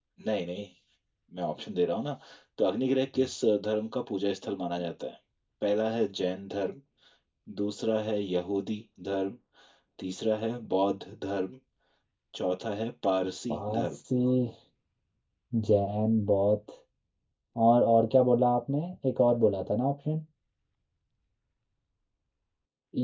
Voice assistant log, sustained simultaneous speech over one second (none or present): none